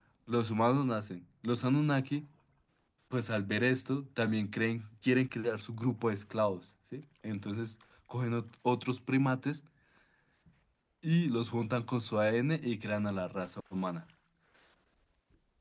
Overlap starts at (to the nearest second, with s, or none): none